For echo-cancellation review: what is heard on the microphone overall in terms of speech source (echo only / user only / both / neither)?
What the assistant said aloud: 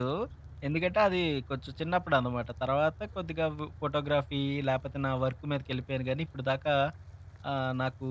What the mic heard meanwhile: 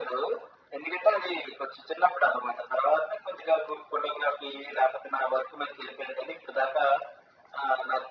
echo only